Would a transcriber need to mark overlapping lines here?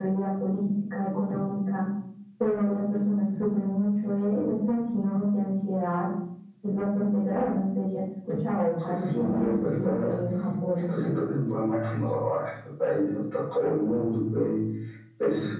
Yes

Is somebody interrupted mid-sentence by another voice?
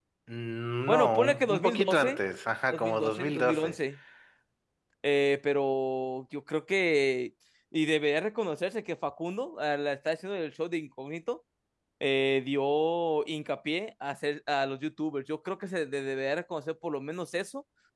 Yes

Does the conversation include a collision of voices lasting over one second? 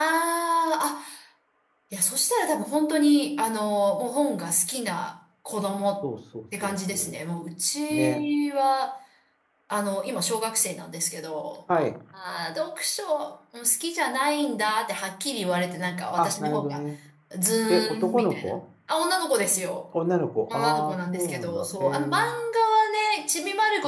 Yes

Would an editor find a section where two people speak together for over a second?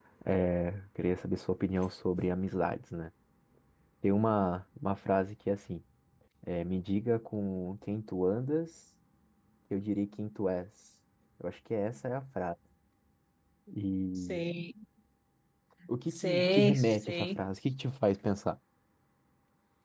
Yes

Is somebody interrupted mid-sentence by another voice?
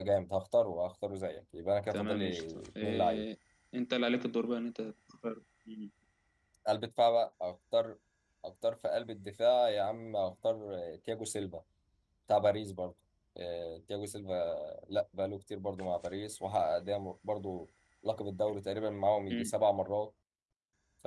Yes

